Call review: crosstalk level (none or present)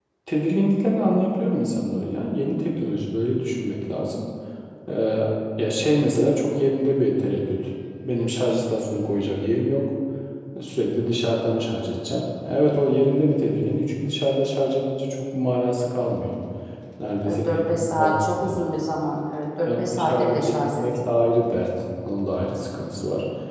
present